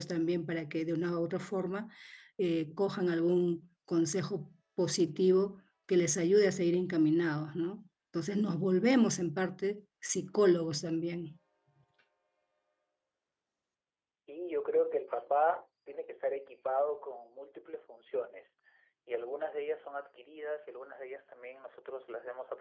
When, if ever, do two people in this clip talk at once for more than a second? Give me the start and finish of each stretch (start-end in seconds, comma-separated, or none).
none